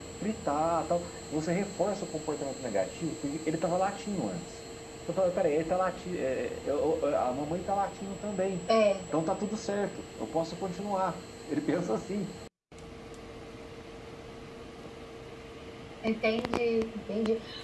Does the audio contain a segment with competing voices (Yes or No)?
No